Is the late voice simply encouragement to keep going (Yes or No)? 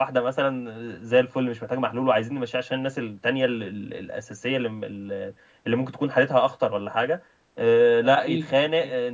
Yes